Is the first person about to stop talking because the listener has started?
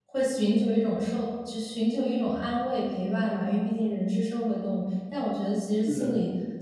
No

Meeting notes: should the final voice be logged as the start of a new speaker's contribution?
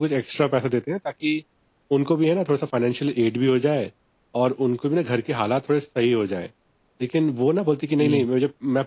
No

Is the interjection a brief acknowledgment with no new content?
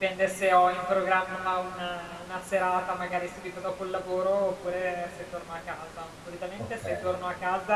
Yes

